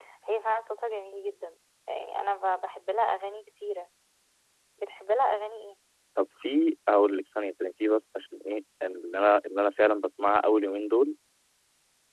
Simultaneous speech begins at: none

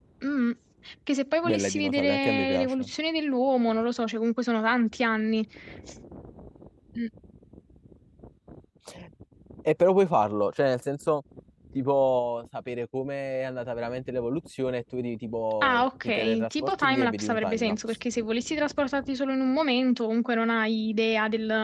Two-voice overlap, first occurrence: 1 s

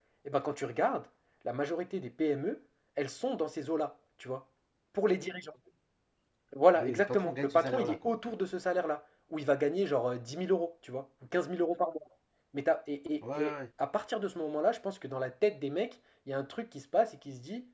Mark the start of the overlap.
7 s

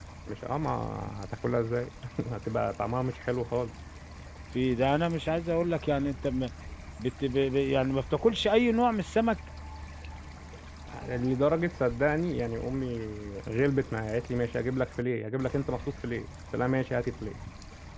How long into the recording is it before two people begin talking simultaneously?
none

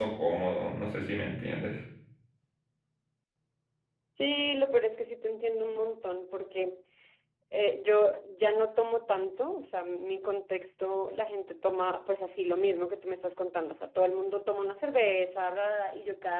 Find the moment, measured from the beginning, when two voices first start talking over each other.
none

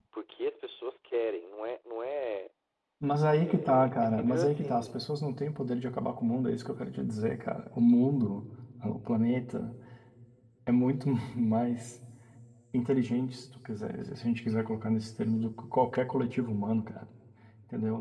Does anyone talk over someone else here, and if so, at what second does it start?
3 s

